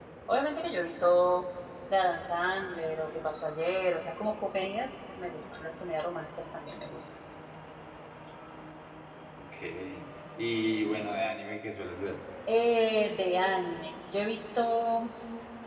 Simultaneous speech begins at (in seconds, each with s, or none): none